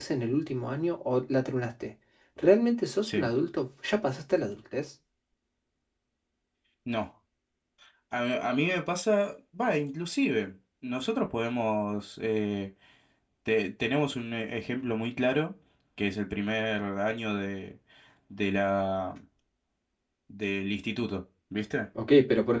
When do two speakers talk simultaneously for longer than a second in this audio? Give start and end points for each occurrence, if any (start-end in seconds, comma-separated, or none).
none